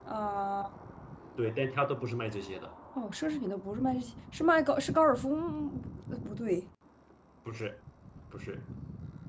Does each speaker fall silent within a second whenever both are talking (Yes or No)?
Yes